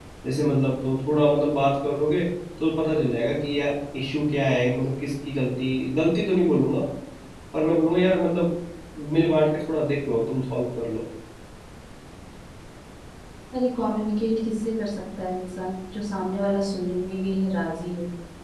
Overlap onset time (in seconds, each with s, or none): none